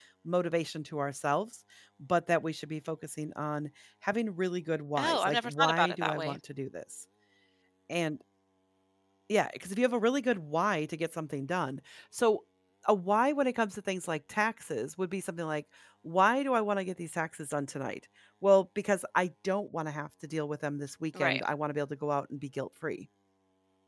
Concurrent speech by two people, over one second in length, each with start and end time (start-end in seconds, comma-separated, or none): 5.0-6.4